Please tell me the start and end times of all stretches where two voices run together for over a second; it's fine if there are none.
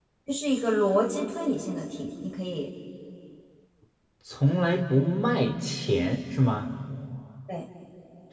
none

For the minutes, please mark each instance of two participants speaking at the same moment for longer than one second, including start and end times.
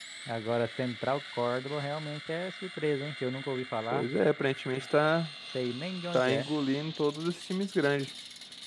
none

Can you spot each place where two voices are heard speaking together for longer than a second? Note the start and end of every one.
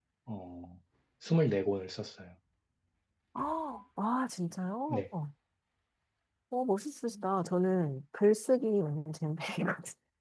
none

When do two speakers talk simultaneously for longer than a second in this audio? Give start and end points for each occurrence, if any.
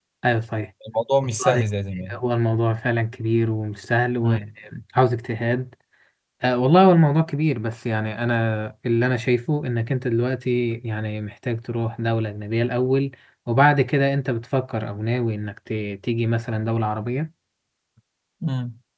none

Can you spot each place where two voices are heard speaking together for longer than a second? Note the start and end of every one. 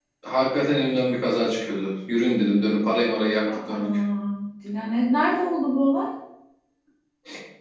none

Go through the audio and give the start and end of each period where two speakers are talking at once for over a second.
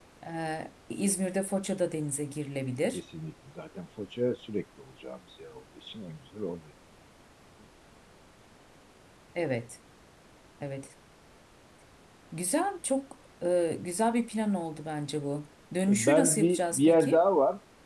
15.9-17.2

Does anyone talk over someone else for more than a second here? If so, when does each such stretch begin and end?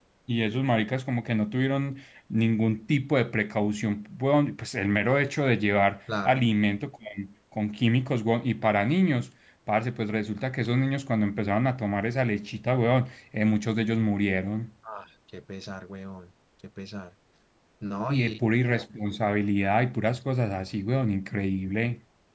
none

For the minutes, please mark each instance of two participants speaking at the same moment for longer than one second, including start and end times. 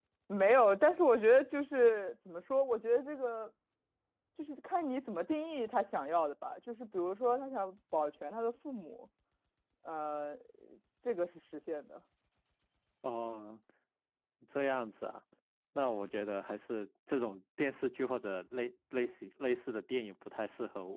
none

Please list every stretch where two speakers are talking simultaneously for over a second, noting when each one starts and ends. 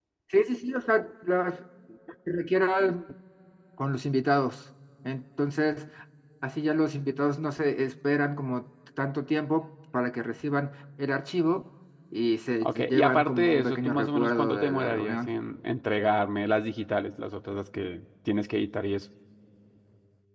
12.6-15.3

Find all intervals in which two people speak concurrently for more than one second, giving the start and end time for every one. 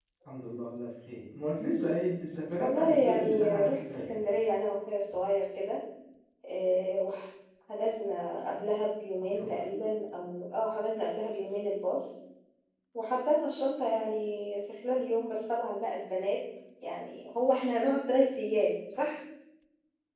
2.6-4.2

